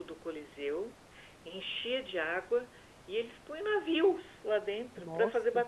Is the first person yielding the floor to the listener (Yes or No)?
No